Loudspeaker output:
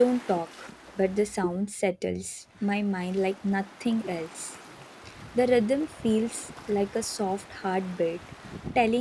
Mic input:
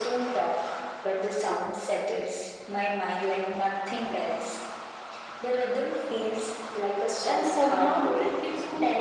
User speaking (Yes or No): Yes